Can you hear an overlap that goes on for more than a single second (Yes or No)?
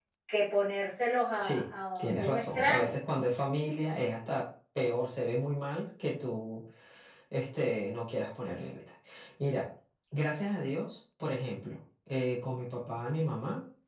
Yes